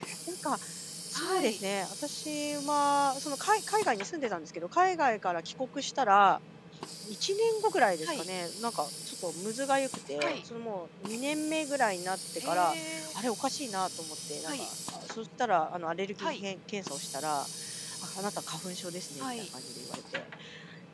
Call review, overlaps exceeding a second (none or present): none